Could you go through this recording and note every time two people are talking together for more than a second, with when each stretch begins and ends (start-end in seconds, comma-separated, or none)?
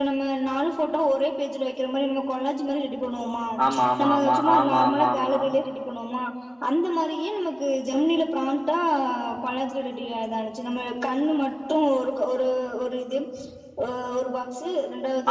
4.0-5.4